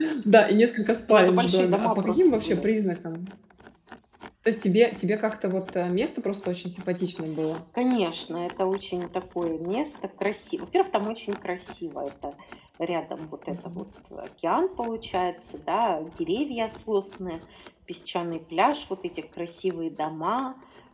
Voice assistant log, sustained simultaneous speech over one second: present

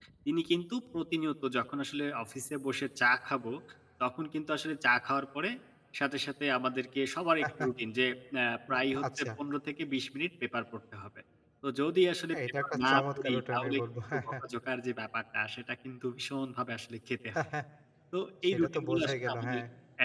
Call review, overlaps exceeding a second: present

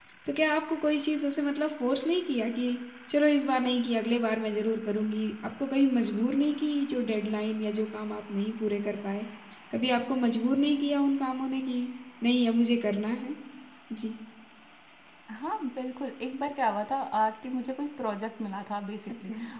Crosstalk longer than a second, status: none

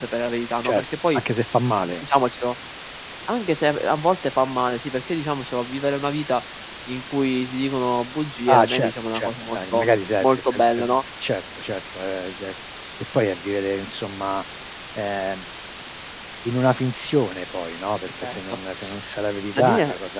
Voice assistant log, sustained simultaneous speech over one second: present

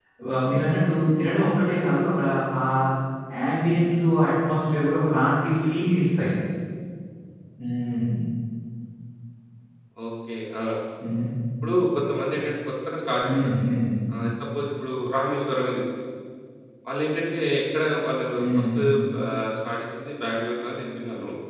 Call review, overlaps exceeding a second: none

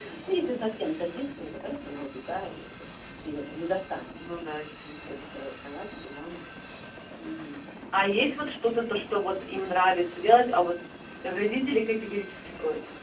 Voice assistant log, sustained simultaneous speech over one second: none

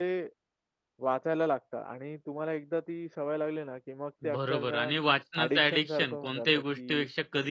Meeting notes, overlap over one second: present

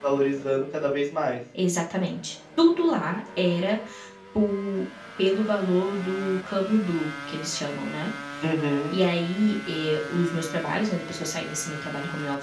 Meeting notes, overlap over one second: none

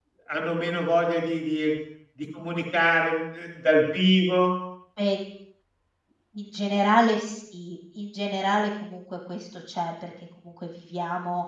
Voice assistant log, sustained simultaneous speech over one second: none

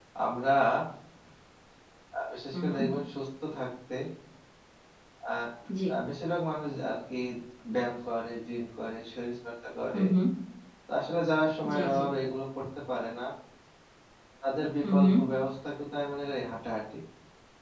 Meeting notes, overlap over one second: none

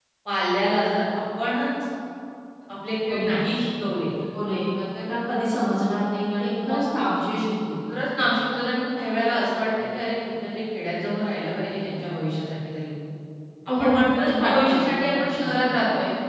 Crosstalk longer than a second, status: present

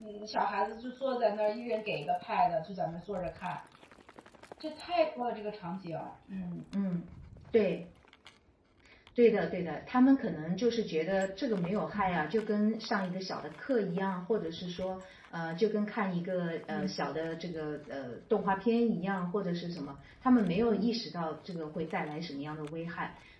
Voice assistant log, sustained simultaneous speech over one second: none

